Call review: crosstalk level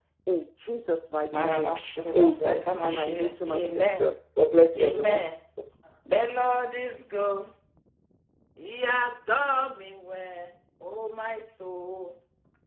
present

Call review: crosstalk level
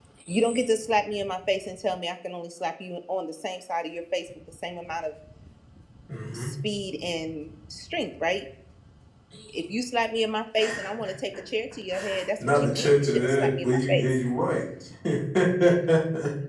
present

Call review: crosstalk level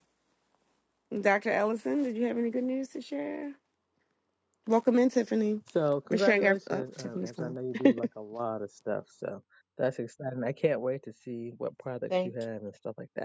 present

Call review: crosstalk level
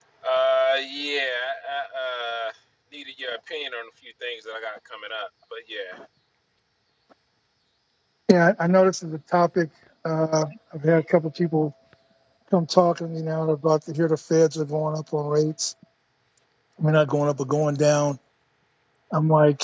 none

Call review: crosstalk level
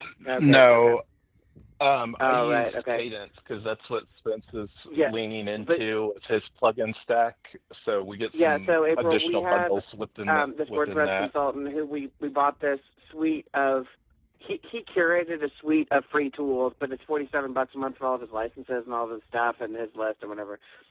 present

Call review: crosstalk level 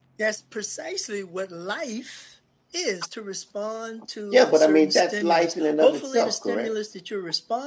present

